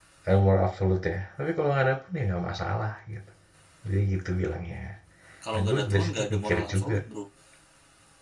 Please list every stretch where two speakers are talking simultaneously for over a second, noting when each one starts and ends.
5.5-7.0

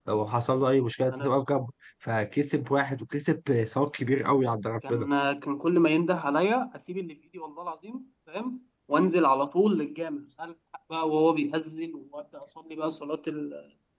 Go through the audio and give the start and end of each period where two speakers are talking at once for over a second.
none

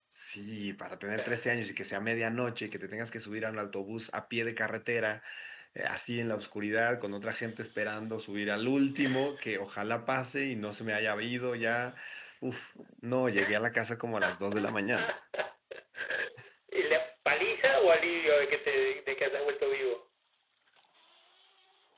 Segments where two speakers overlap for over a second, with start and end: none

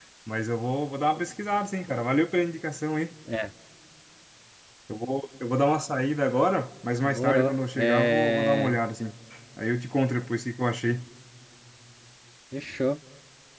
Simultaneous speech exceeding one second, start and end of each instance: 7.0-8.8

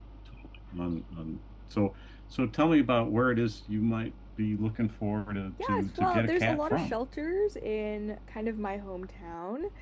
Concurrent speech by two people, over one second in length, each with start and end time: 5.6-6.9

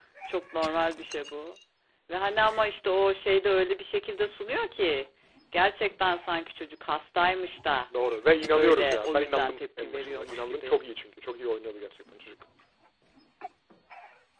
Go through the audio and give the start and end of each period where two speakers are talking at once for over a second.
8.5-10.8

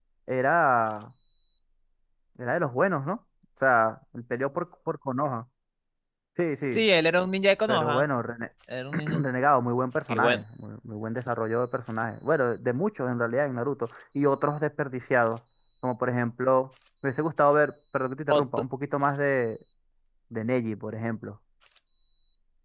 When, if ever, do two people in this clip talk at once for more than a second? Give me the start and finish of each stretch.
none

